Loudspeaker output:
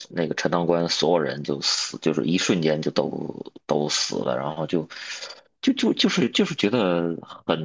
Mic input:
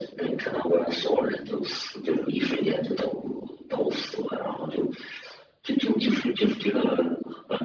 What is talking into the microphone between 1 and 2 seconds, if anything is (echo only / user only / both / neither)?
echo only